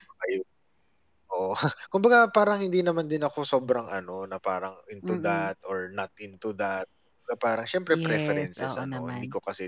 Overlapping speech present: Yes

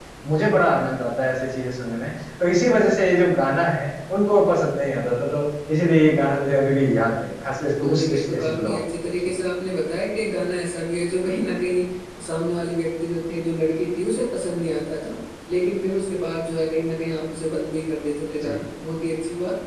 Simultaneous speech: Yes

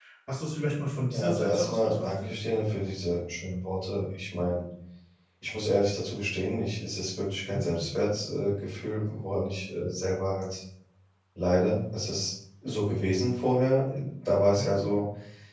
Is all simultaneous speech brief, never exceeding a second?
No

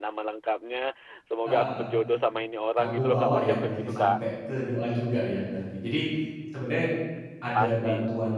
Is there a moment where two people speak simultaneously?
Yes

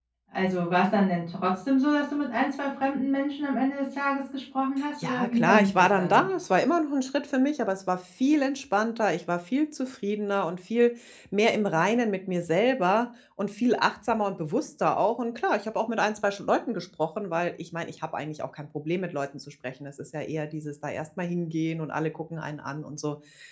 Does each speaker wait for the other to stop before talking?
No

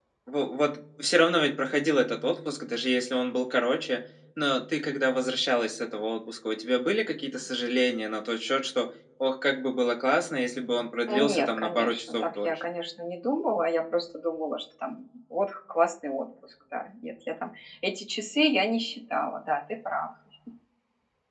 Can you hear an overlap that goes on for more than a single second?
Yes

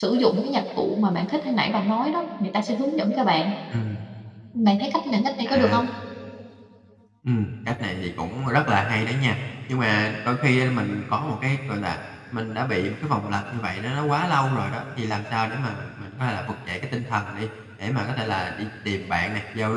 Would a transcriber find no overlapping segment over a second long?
Yes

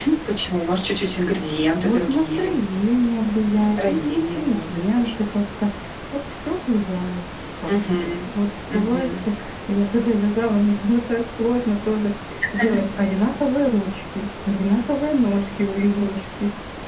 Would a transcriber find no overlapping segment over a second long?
No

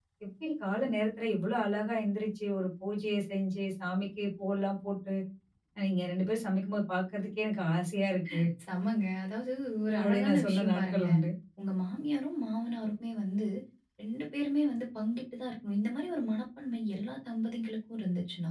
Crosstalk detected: Yes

